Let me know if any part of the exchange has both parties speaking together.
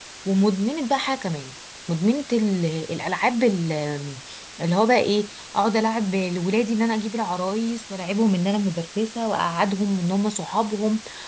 No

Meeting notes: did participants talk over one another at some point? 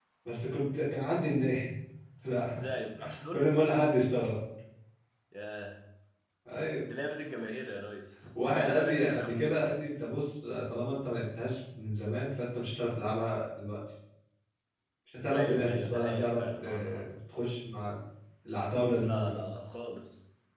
Yes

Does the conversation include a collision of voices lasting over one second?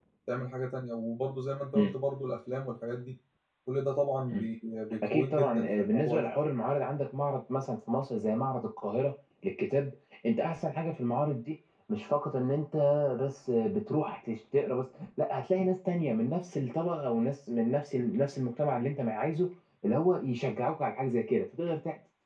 Yes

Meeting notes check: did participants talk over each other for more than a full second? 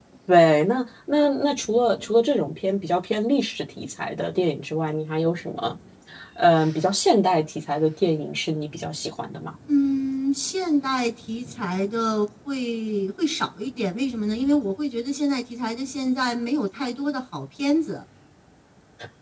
No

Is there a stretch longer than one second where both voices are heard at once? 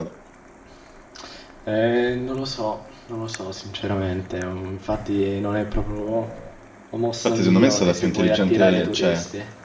Yes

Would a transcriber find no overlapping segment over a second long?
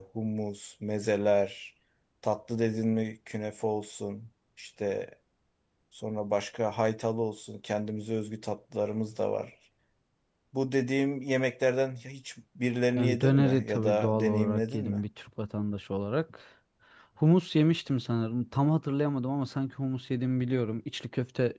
No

